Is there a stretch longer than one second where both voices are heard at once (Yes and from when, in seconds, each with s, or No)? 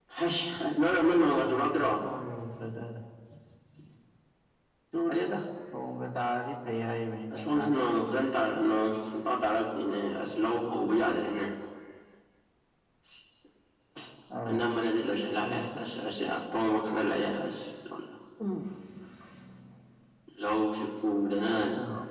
No